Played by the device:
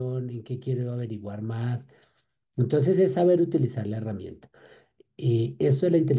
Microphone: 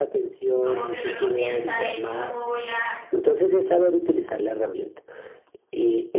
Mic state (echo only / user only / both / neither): both